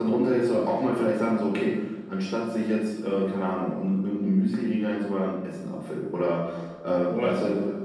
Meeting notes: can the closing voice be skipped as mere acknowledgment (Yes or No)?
Yes